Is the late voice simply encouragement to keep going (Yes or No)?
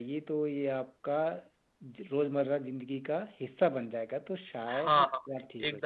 No